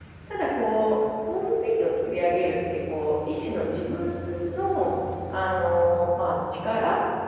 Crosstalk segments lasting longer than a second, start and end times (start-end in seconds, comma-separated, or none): none